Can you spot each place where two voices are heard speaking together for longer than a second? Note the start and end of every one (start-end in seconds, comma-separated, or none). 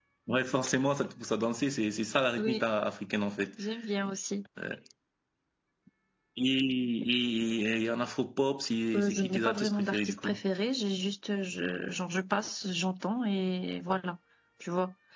8.9-10.4